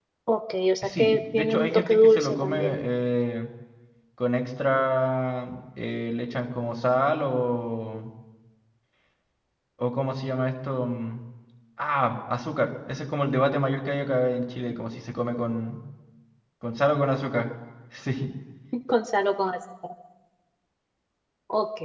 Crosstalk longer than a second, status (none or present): present